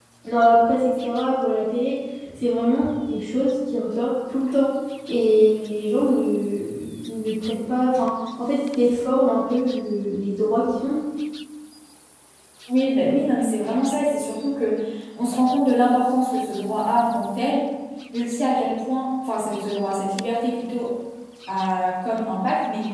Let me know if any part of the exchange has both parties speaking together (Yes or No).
No